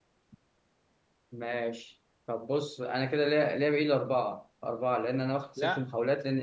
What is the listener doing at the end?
listening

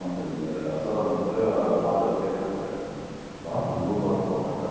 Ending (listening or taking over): listening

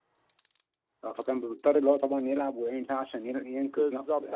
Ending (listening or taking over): taking over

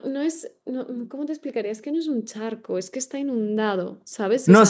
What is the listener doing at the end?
taking over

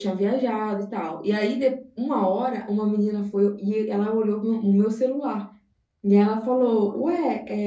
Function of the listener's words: listening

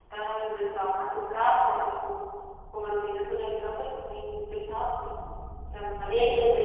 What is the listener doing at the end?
taking over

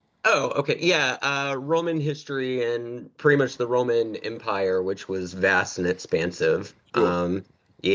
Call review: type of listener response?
listening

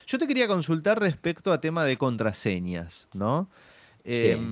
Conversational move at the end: listening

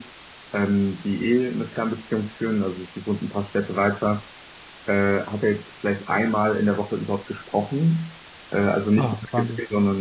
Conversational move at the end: listening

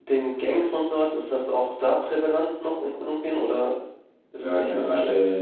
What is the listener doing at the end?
taking over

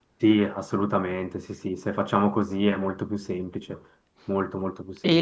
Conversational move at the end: taking over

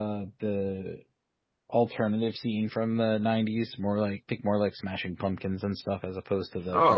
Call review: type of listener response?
taking over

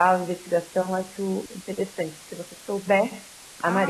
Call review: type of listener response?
taking over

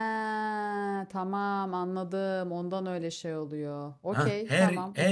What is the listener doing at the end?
taking over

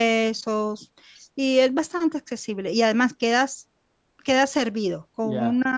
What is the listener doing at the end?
listening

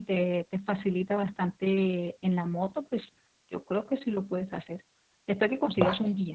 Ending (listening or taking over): listening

